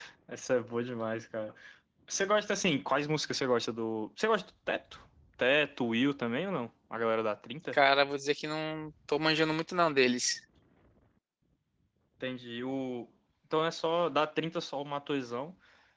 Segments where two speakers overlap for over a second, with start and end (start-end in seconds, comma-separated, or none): none